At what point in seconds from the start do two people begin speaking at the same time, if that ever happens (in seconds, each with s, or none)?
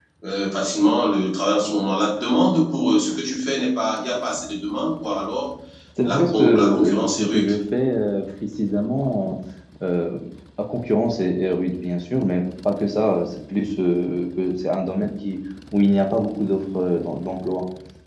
6.0 s